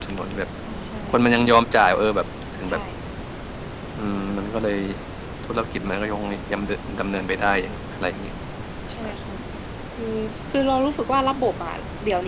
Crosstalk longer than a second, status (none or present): none